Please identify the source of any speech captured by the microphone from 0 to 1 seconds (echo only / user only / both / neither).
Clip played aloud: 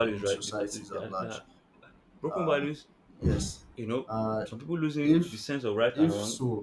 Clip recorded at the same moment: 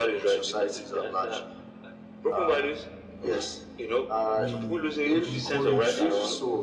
echo only